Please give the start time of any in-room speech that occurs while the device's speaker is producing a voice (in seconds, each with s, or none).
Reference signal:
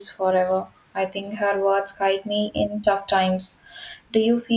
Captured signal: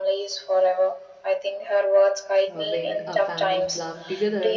2.5 s